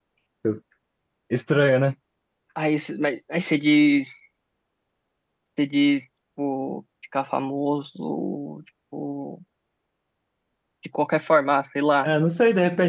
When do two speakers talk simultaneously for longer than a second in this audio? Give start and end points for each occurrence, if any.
none

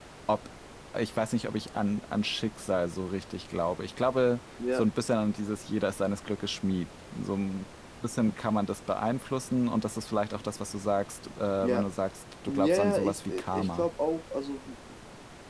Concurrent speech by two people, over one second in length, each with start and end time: 12.5-13.9

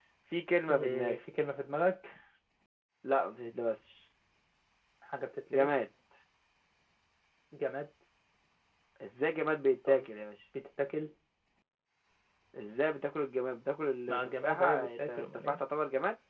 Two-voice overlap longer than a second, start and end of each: 14.1-15.6

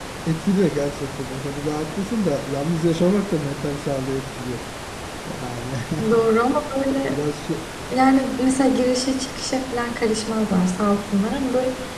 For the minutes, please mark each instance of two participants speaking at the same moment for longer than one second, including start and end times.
none

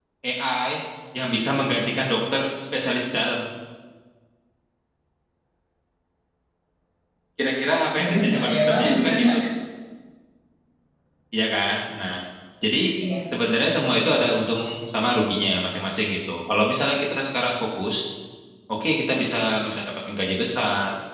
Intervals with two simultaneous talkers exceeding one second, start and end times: 8.0-9.4

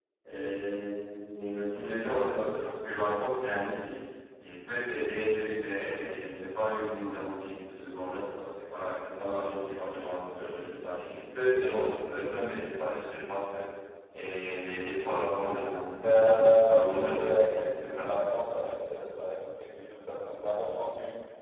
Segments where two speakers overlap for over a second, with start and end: 16.0-18.1

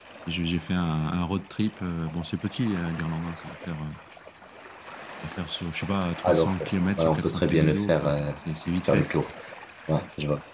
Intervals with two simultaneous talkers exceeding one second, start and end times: 7.0-8.3

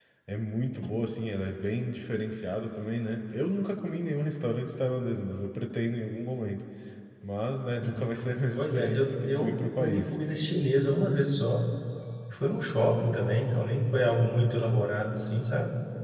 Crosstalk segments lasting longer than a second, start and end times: 8.6-10.2

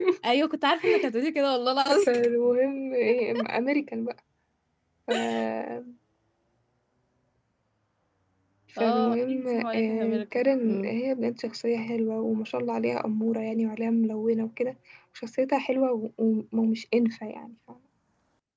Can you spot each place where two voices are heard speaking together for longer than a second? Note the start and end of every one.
8.8-10.9

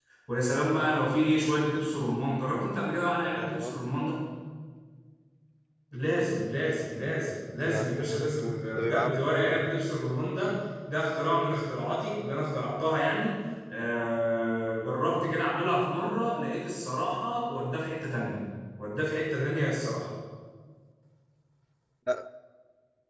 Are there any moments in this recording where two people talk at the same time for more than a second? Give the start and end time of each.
7.6-9.7

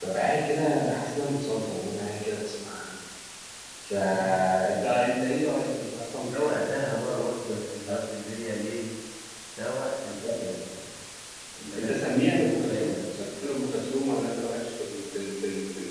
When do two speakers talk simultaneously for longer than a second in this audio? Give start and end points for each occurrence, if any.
11.8-13.0

